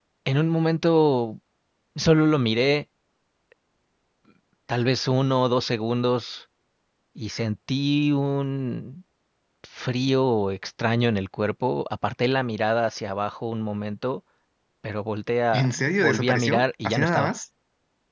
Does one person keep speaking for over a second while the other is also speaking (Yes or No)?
Yes